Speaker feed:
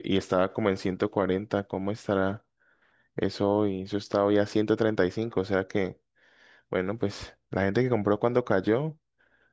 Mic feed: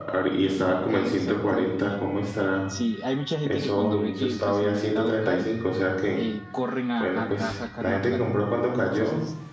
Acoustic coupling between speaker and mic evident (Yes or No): Yes